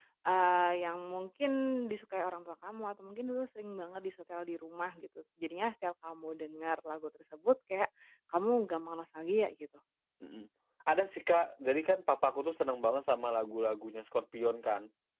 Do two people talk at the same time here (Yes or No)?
No